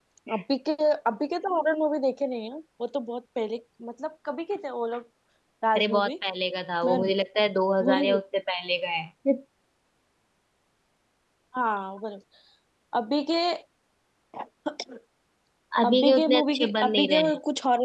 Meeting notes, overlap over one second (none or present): present